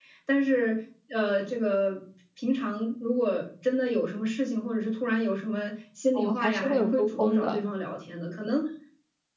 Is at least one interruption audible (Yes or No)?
Yes